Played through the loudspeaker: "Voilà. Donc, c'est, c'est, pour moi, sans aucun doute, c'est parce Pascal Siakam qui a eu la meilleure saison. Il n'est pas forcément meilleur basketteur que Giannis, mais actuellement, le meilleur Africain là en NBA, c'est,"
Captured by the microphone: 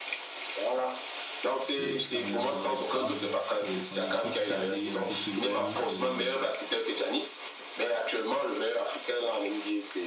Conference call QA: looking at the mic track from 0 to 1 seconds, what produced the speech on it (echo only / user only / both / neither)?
echo only